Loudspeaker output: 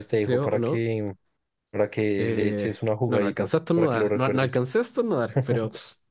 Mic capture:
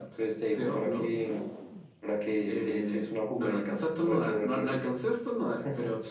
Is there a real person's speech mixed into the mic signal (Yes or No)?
No